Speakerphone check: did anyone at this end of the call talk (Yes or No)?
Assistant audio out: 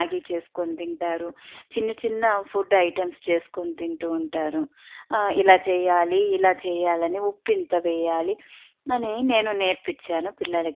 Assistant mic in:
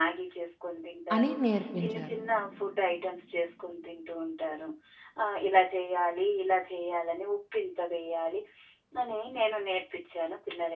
Yes